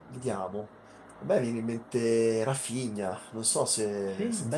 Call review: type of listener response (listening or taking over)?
taking over